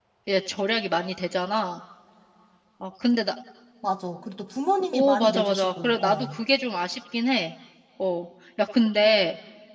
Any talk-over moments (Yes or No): Yes